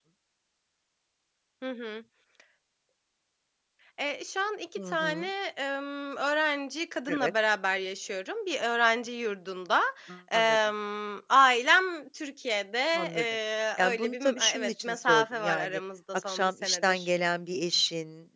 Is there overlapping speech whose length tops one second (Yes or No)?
Yes